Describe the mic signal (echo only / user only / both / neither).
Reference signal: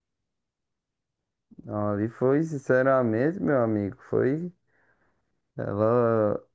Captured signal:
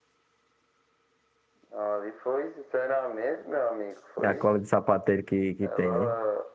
both